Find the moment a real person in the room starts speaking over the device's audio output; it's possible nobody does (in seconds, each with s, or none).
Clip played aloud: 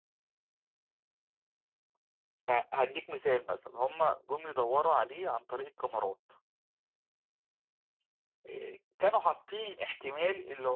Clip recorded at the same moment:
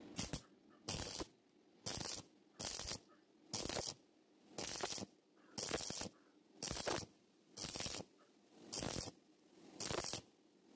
none